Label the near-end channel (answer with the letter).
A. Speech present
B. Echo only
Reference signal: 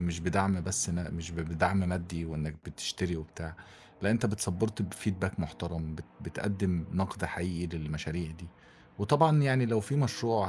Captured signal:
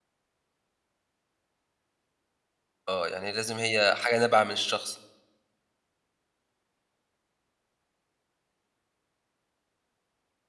A